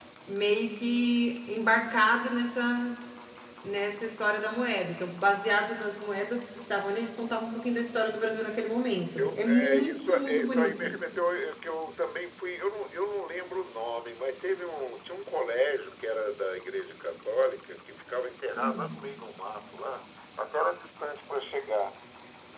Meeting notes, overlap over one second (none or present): present